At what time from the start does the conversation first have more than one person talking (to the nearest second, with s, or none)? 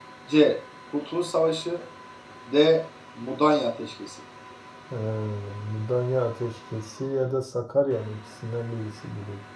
none